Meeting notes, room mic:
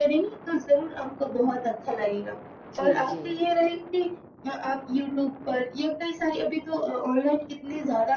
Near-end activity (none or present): present